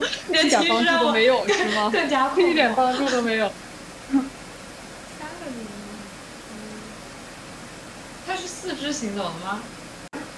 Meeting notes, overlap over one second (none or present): present